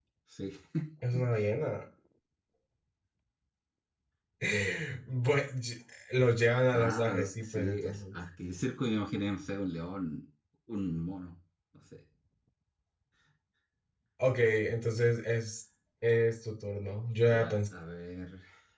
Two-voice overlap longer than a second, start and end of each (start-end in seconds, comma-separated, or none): 6.7-8.2